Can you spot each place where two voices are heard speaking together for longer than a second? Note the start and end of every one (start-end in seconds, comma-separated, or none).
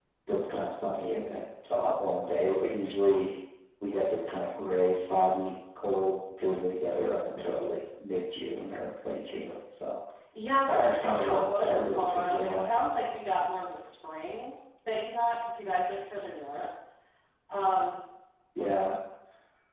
10.7-12.7